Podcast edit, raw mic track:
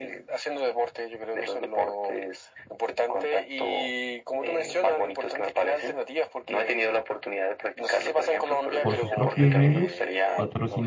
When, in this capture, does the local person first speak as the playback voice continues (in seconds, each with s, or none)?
8.8 s